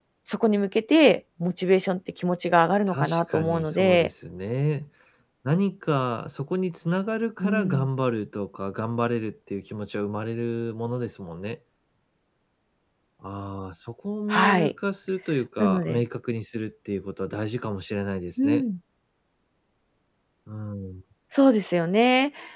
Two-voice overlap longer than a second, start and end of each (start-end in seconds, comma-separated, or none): 2.9-4.1